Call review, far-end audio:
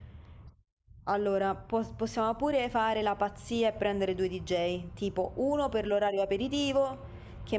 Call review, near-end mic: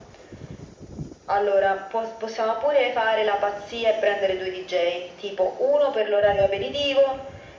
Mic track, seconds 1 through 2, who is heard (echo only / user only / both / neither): echo only